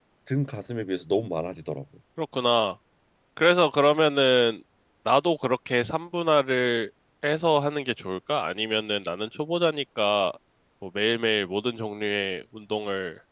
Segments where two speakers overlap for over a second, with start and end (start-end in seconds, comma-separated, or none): none